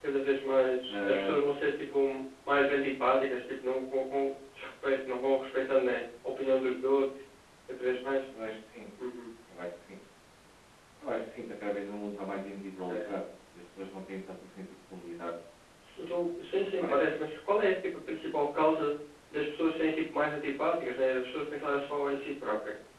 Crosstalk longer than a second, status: none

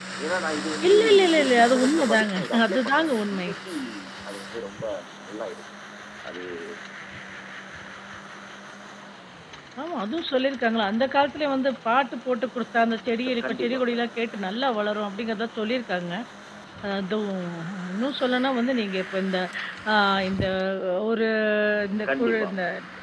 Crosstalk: present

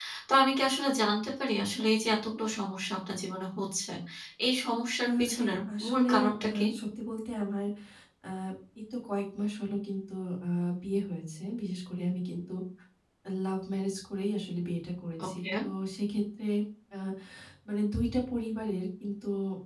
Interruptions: present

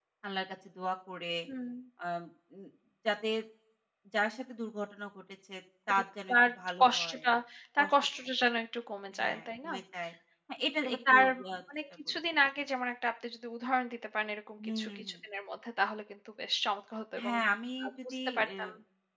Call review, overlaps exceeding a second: present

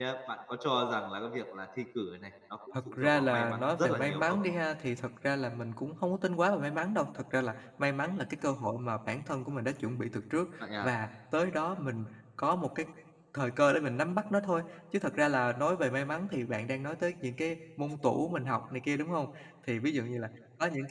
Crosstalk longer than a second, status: present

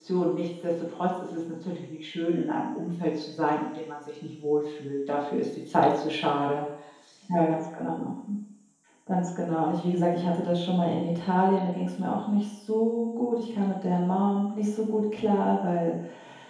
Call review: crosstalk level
none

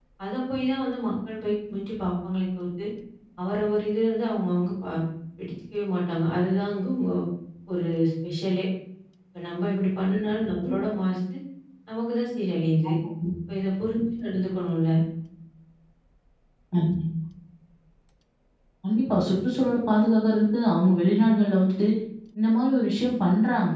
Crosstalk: none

